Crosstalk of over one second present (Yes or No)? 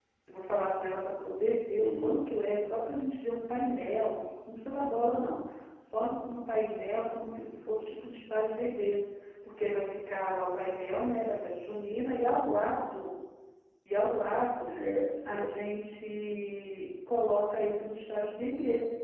No